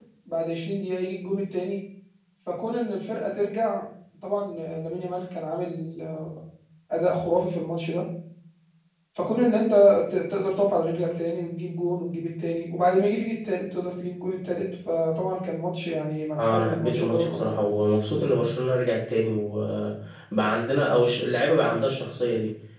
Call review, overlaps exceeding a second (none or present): present